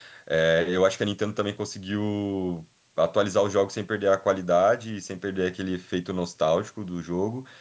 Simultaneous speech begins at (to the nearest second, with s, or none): none